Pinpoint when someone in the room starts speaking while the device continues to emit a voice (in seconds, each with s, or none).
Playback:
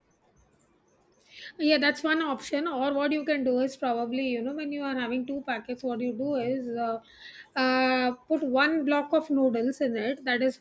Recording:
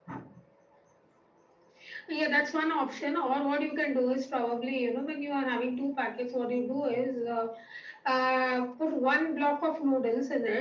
none